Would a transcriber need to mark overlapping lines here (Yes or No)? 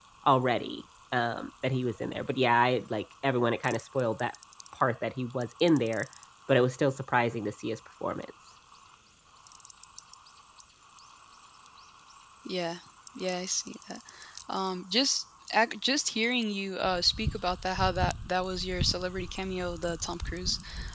No